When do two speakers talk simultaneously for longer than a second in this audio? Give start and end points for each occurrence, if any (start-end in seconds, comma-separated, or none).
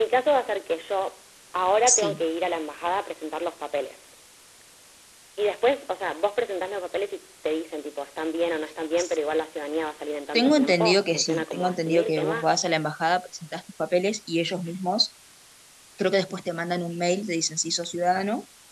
10.3-12.5